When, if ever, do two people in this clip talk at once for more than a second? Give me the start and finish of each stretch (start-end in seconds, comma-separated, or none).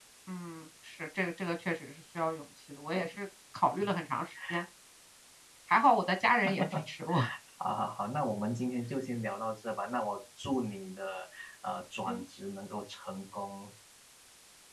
none